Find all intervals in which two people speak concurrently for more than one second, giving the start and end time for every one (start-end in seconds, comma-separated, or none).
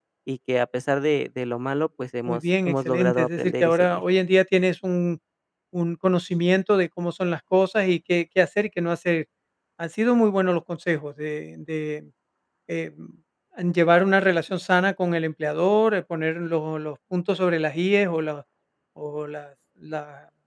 2.3-4.0